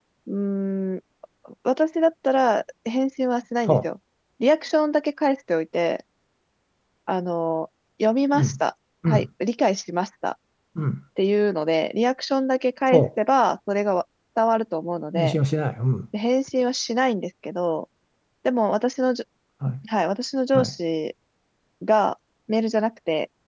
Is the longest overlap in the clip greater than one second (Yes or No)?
No